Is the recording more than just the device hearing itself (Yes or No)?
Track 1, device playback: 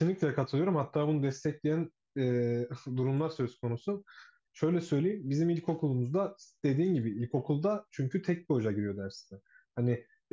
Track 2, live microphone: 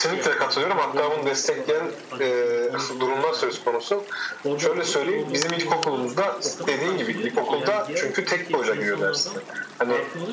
Yes